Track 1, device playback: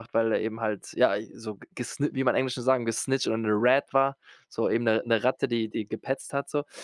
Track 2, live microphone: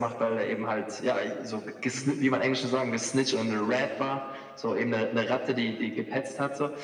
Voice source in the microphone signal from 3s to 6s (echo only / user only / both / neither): echo only